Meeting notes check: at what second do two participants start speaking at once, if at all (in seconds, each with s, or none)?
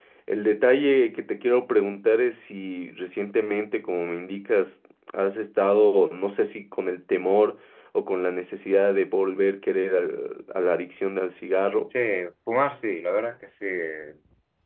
none